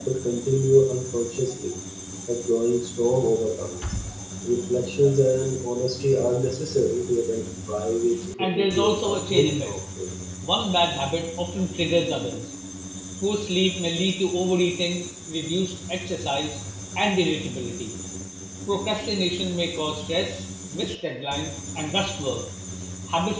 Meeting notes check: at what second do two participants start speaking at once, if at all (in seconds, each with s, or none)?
8.4 s